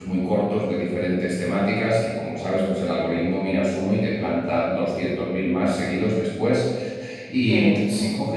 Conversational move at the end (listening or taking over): listening